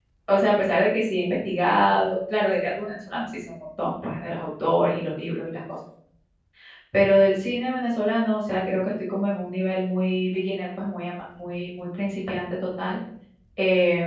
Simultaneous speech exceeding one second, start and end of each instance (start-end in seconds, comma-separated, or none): none